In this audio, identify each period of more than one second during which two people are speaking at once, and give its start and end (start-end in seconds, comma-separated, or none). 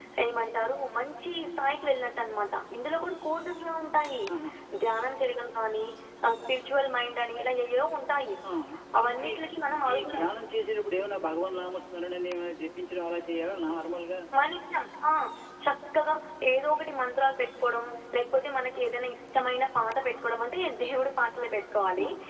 none